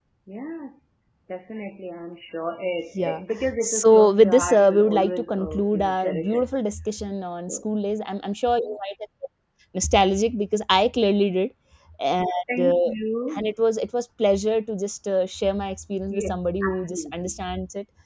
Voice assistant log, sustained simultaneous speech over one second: present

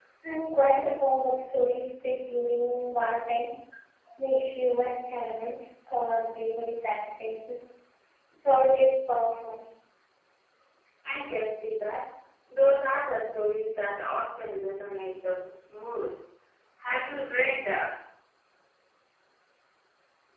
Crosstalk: none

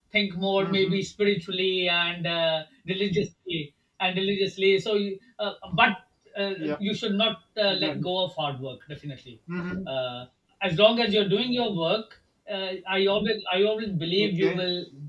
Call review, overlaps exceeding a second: none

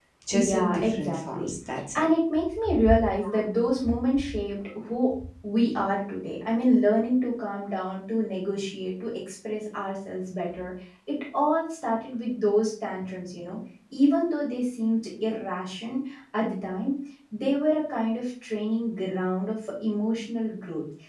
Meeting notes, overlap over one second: present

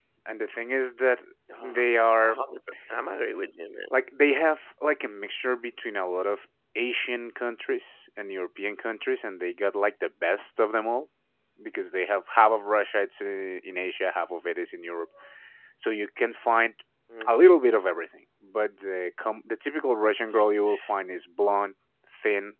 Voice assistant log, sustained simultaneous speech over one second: none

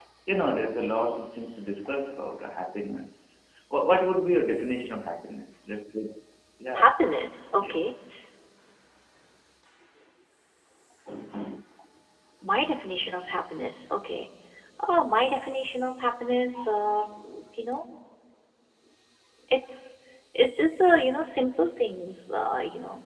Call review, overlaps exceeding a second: none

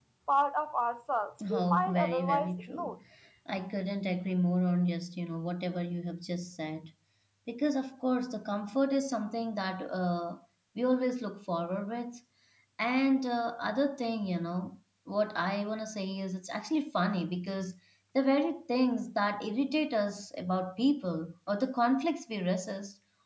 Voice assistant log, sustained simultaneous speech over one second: present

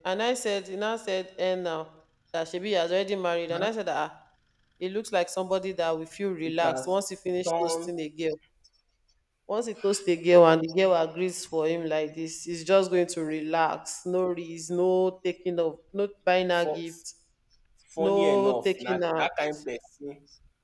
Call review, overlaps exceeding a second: present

